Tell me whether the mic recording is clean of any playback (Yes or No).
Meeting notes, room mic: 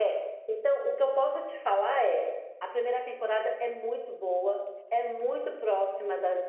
Yes